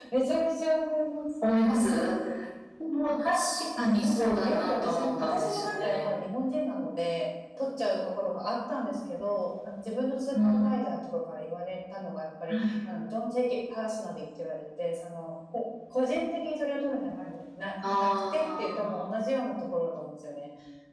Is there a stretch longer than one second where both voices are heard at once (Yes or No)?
Yes